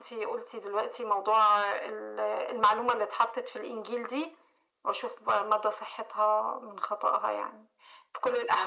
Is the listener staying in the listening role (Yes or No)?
Yes